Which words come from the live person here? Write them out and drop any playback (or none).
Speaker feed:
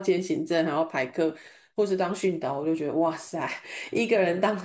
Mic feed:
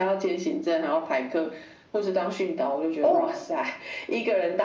哦，